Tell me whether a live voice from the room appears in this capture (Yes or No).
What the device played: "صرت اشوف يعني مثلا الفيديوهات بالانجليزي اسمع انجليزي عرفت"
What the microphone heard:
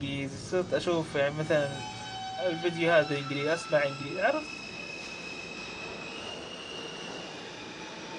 No